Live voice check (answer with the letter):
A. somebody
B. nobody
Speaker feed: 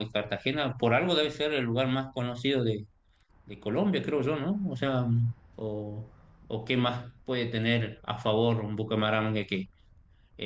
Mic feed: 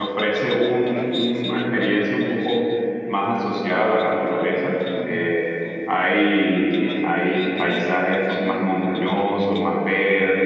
A